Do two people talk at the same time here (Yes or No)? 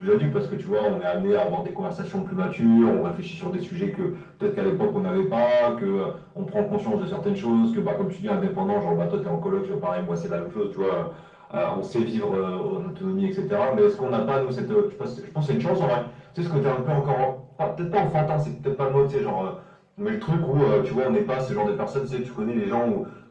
No